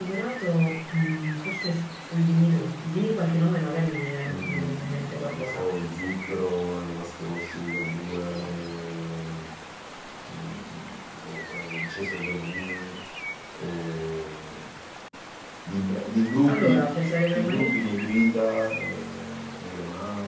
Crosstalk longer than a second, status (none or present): present